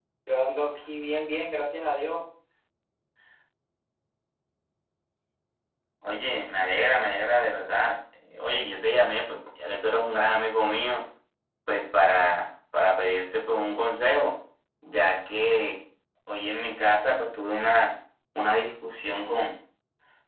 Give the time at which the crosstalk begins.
none

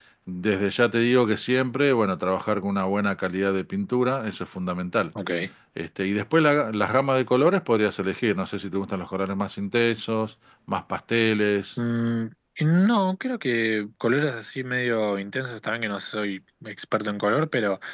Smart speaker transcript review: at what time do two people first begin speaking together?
none

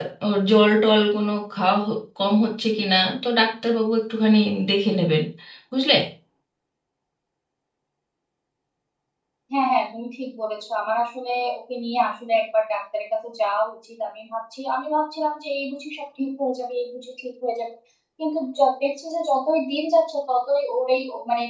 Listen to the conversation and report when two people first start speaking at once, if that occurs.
none

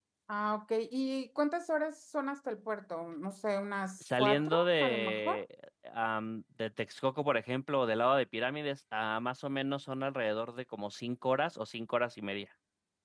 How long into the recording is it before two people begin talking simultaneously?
4.0 s

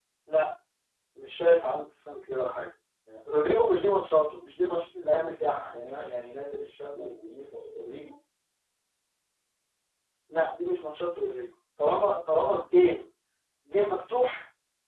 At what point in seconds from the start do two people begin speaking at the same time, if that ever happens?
none

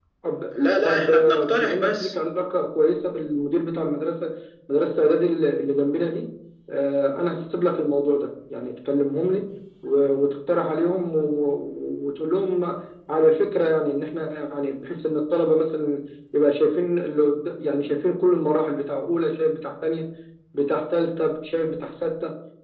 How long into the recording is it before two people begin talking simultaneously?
0.8 s

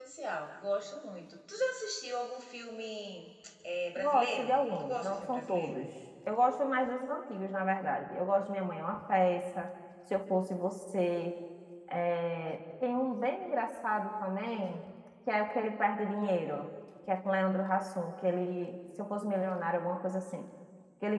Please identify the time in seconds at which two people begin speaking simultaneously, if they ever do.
4.0 s

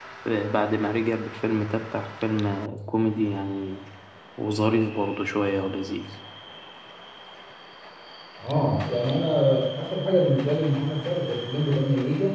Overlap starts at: none

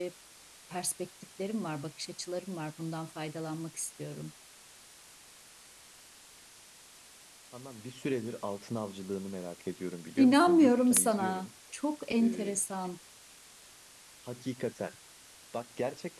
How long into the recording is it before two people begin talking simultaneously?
10.2 s

